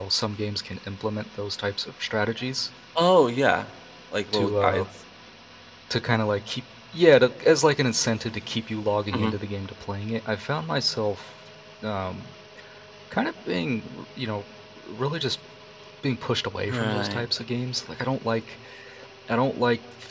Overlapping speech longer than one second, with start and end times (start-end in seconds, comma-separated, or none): none